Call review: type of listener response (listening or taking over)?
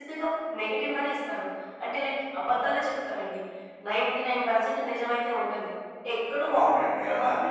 taking over